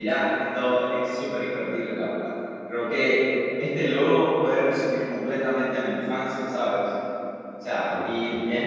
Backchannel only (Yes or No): Yes